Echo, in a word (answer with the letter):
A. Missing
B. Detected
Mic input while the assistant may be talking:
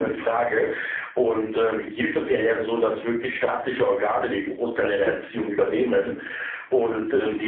B